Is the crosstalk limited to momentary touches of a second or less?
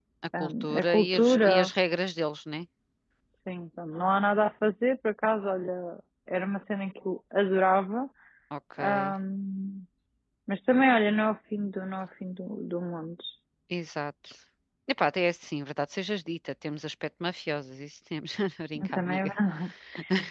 No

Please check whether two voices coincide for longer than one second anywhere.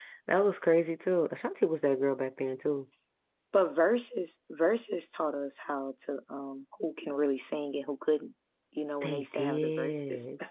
Yes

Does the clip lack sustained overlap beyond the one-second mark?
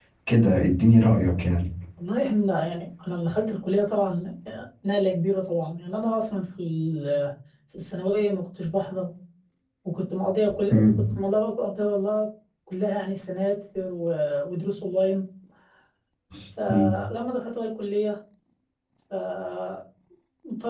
Yes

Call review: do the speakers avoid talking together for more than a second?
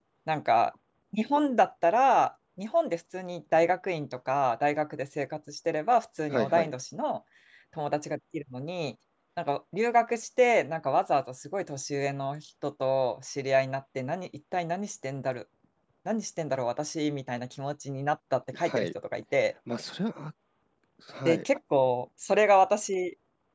Yes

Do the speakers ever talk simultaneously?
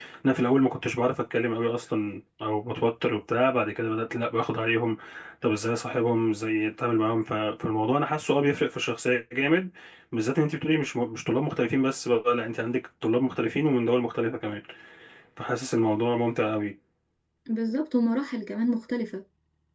No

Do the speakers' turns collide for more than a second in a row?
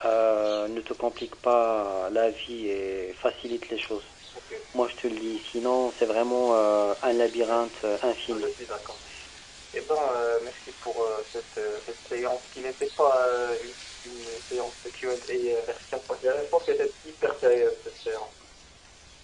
No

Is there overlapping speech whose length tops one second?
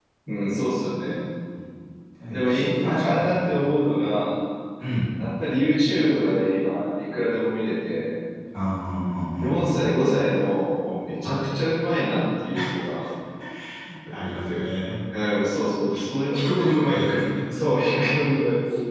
Yes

